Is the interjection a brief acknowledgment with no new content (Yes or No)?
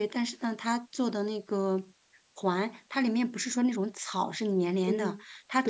Yes